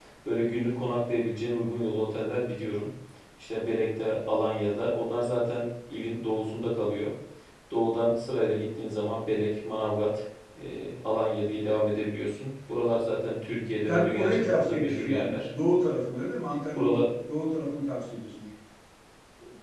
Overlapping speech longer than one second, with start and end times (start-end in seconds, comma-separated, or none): 13.9-15.4